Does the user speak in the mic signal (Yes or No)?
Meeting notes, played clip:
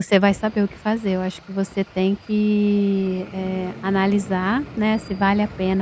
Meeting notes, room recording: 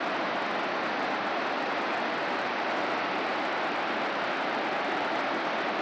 No